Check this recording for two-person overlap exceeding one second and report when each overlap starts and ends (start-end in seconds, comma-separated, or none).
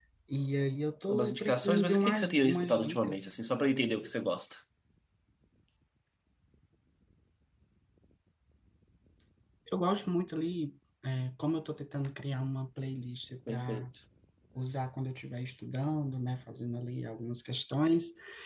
1.1-3.3